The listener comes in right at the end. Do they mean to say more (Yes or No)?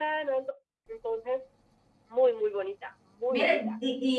Yes